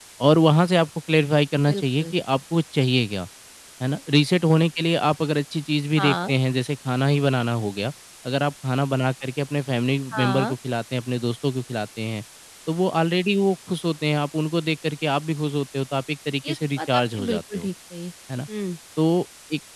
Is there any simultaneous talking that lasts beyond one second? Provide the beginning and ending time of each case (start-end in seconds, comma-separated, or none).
16.5-17.7